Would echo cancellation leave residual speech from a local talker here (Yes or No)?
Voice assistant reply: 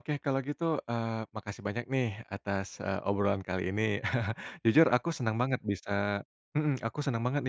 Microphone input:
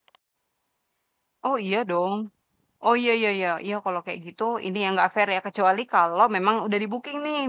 Yes